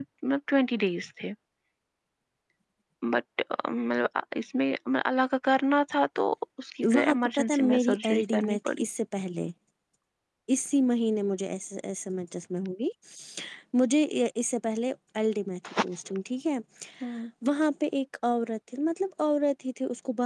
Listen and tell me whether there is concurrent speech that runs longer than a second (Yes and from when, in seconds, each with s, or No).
Yes, from 6.8 s